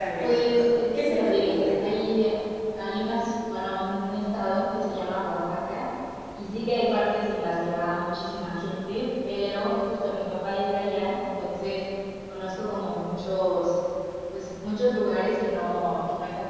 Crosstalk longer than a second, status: present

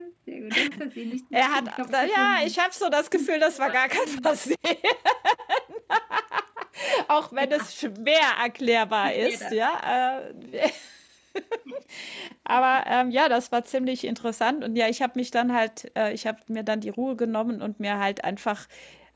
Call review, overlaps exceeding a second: present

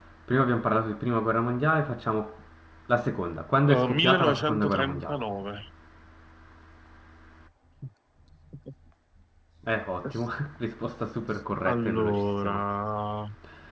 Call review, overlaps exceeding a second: present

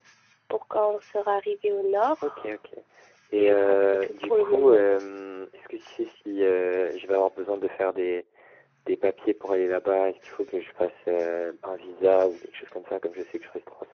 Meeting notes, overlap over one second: present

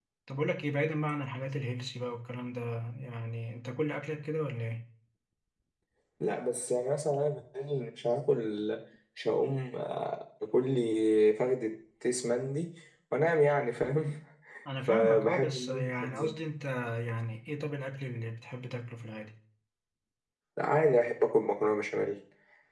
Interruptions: present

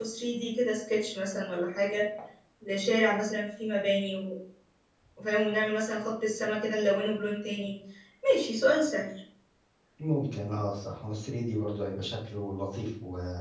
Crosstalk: none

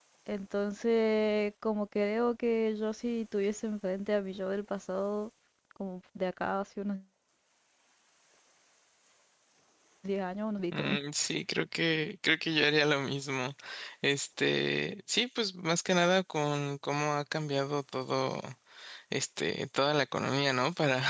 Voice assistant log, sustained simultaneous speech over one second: none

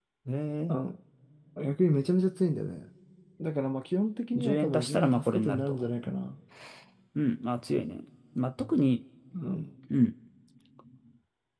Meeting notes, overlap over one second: present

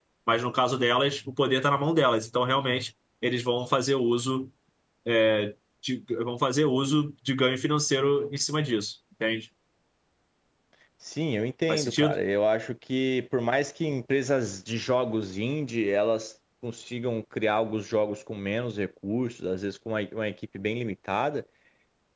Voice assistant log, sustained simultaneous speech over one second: none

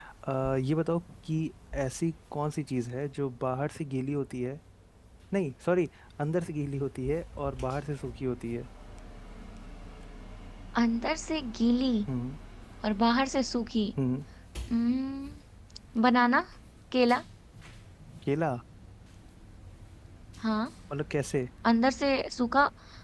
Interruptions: none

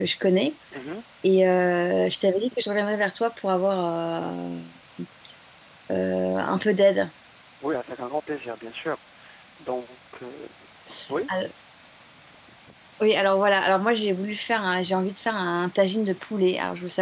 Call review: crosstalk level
none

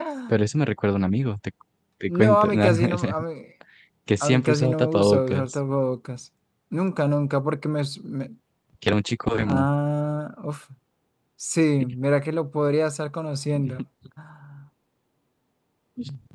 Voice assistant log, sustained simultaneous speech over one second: present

